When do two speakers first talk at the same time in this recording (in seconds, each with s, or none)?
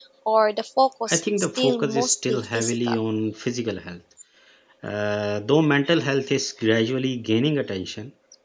1.1 s